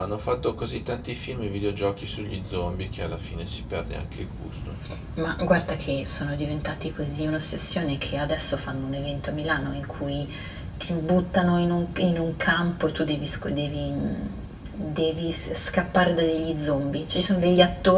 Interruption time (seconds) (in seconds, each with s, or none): none